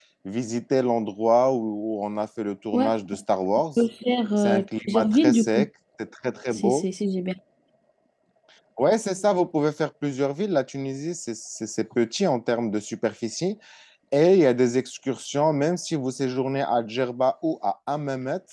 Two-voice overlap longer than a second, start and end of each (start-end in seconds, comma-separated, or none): 4.4-5.7